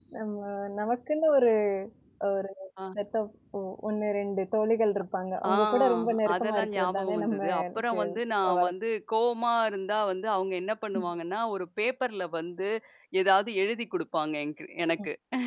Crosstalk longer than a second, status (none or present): present